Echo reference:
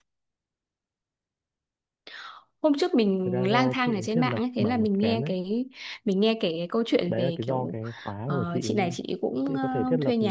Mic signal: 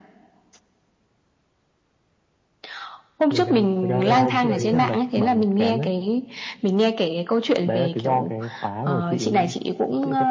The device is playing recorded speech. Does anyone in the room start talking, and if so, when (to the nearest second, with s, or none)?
3 s